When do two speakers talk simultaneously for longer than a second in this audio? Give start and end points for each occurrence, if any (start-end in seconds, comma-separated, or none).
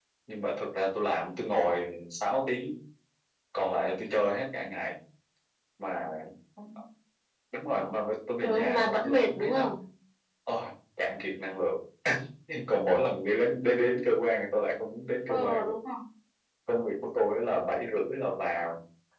8.4-9.7